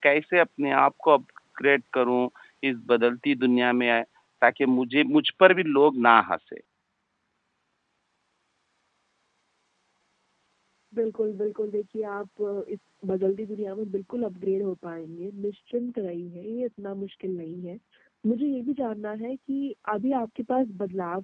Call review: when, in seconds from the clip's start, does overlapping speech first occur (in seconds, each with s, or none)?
none